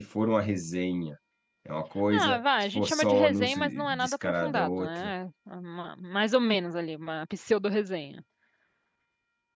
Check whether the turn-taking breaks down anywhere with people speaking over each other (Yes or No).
Yes